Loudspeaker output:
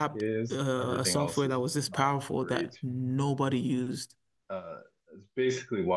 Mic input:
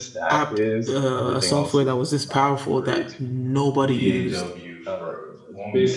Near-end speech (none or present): present